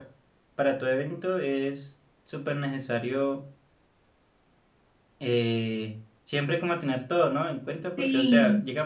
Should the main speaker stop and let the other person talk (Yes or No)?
No